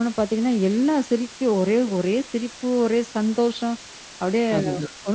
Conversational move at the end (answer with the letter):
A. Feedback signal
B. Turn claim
A